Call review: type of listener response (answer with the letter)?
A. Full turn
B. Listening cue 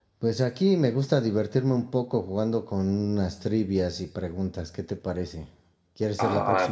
A